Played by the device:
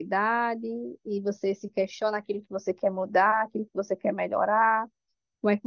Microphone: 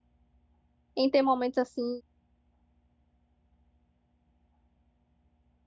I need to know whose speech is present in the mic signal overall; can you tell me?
user only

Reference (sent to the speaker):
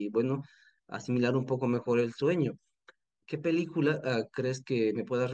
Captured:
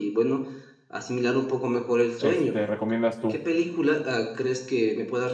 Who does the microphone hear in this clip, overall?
both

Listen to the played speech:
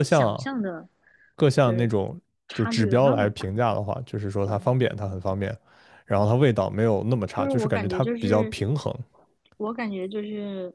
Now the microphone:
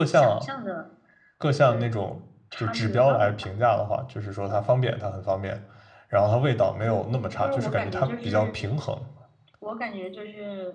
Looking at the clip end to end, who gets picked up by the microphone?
echo only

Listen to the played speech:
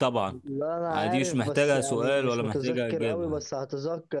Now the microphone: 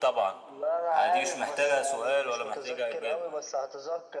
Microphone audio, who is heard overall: echo only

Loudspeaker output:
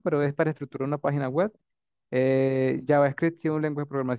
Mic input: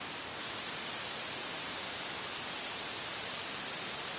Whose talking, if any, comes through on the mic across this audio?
neither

